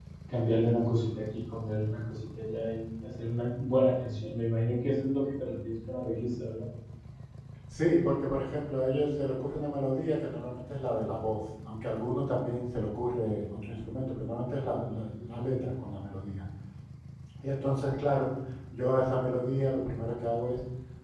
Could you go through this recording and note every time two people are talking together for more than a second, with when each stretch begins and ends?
none

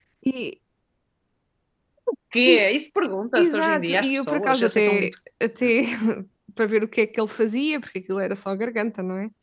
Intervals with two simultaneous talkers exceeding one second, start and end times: 3.4-5.1

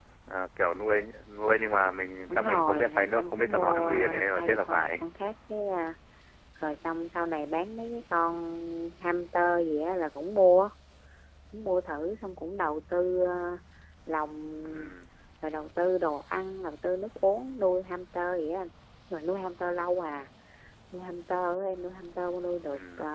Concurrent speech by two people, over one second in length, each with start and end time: 2.3-4.9

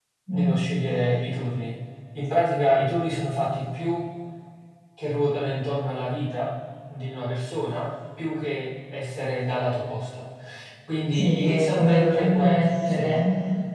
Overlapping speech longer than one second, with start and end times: 11.1-13.1

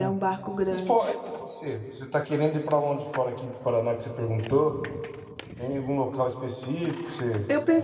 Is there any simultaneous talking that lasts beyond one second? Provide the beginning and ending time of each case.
none

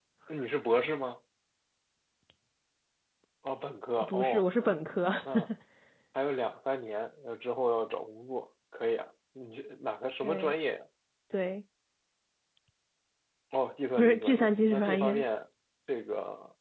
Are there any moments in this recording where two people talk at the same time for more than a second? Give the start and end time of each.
14.0-15.2

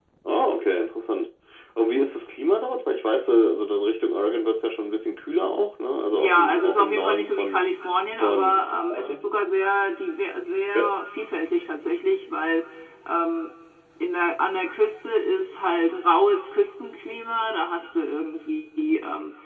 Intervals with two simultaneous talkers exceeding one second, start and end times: 6.1-7.6

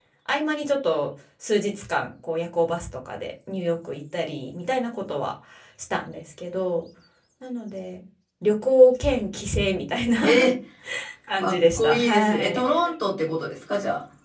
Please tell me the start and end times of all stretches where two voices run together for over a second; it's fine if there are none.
11.4-12.9

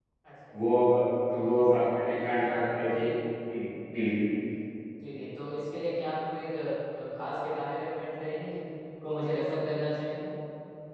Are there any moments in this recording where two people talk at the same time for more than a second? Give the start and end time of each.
1.4-3.0

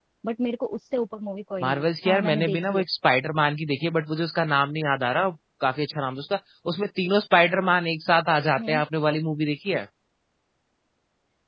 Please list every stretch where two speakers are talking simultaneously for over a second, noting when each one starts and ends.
1.6-2.8

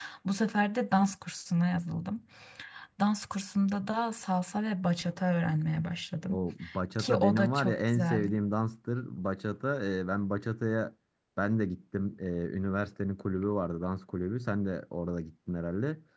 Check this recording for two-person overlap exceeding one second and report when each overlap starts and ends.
7.0-8.3

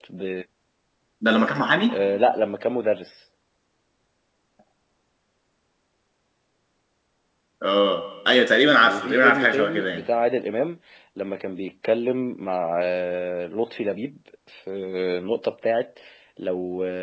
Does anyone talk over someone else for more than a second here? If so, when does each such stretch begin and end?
8.8-10.1

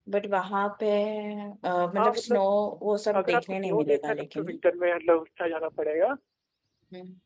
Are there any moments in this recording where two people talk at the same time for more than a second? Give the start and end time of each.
3.2-4.5

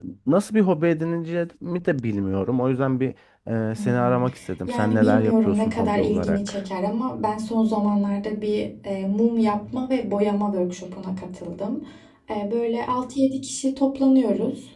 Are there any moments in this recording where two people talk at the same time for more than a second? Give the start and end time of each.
4.7-6.6

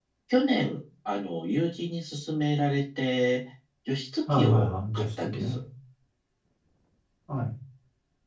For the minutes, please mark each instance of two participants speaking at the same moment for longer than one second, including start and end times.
4.3-5.6

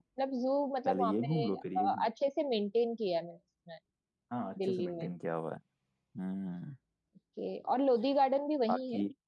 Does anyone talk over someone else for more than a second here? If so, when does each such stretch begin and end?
0.9-2.1

